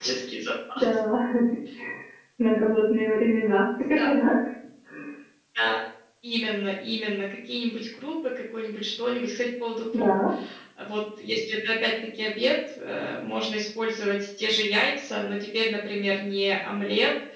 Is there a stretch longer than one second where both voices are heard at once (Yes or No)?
No